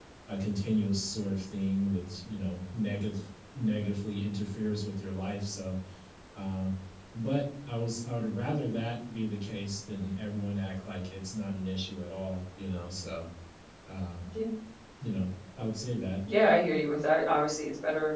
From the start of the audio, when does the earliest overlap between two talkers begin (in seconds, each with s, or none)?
none